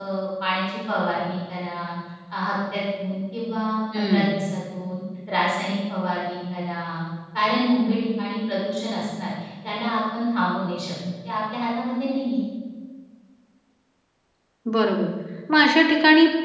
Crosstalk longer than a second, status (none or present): none